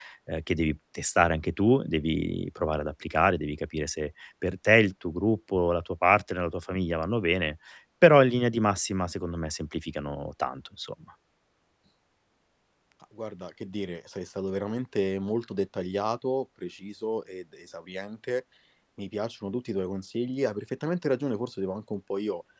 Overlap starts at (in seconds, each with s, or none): none